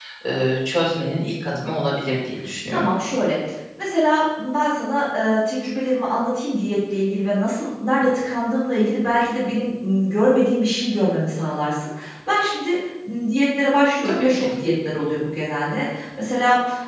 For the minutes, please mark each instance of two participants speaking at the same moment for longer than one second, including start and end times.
none

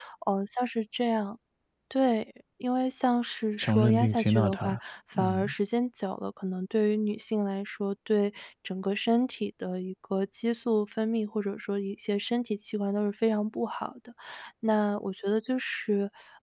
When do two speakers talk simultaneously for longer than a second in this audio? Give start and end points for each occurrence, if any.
3.6-4.8

